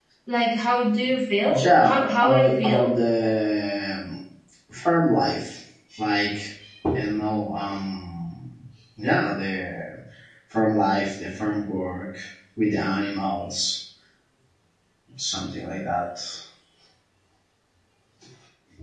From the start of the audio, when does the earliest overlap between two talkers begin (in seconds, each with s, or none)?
1.5 s